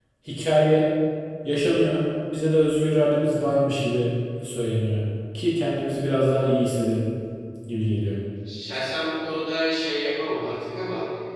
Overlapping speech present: No

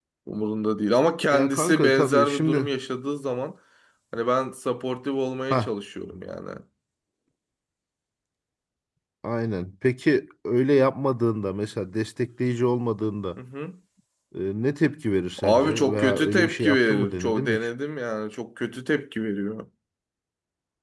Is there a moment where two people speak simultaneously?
Yes, from 1.3 s

